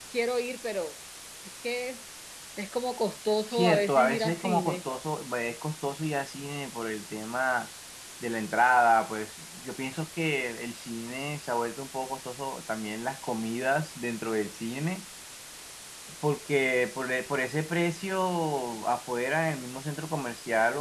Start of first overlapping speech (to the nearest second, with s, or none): 4 s